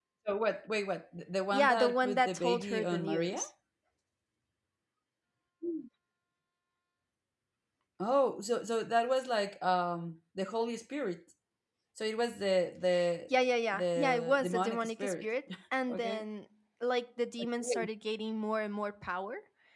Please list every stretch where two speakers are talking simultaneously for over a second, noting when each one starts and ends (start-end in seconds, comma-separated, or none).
1.5-3.4, 13.7-15.2